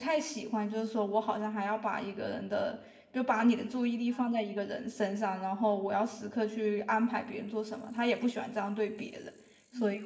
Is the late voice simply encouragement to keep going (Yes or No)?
No